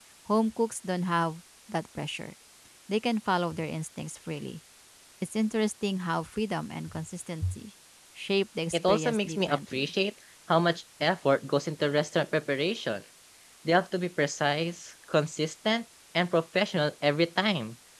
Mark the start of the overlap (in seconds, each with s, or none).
8.7 s